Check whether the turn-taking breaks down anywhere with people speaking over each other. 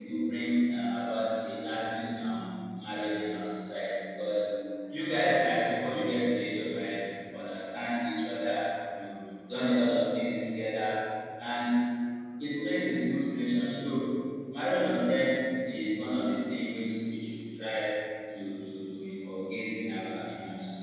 No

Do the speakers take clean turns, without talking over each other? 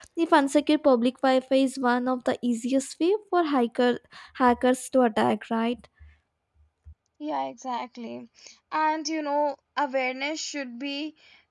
Yes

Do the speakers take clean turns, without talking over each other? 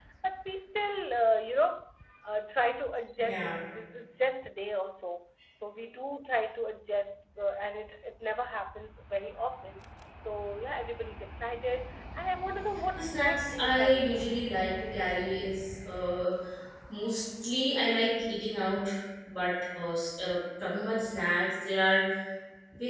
No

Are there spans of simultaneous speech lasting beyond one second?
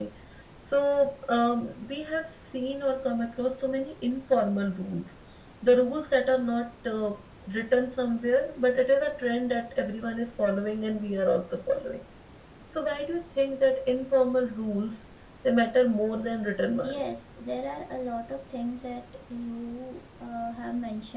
No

